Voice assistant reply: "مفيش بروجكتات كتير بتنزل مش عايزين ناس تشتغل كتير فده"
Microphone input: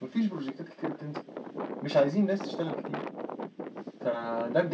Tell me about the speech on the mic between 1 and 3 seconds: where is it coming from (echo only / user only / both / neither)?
echo only